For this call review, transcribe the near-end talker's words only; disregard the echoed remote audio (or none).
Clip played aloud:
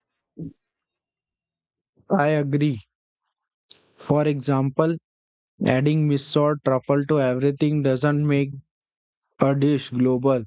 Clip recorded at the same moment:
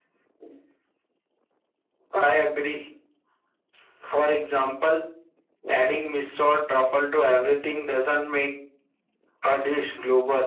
none